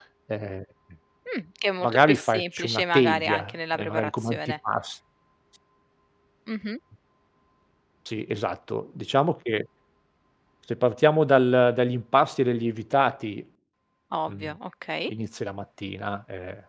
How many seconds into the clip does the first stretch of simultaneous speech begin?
1.8 s

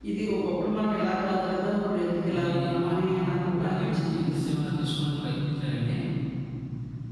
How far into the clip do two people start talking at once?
2.3 s

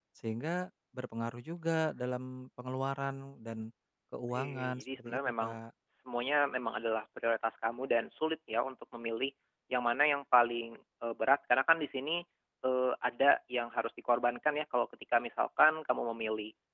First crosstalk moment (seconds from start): 4.3 s

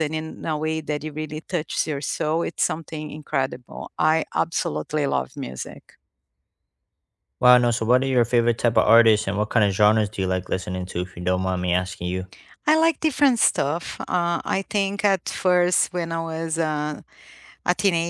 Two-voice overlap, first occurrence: none

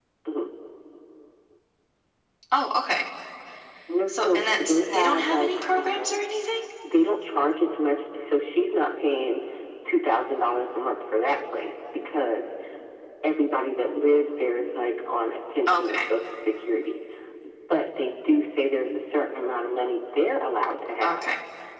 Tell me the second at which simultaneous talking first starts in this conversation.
4.1 s

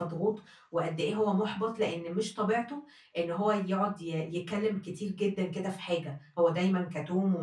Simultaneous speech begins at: none

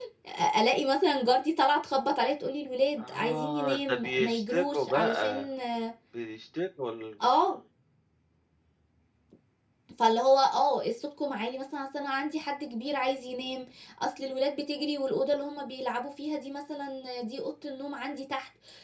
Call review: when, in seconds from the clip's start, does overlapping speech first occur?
3.0 s

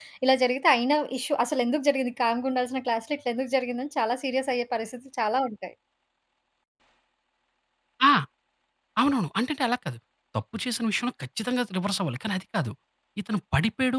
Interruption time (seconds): none

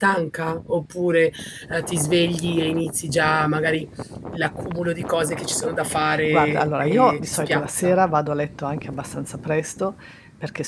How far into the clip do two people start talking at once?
6.3 s

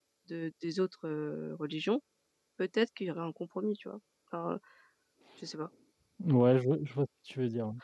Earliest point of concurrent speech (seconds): none

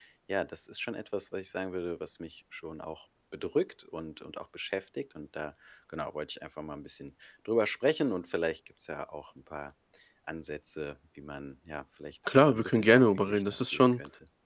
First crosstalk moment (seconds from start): 12.2 s

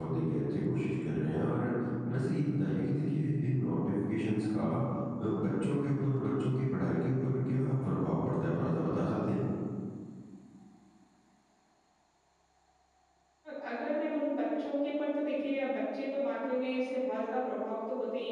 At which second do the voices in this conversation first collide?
none

